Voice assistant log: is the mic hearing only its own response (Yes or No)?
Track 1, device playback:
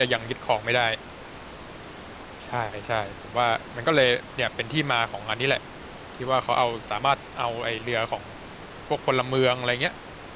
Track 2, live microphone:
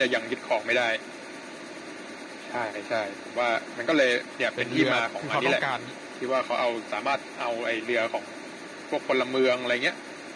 No